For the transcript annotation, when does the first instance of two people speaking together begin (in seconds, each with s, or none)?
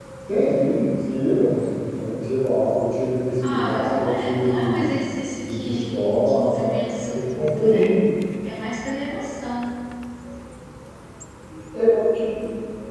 3.4 s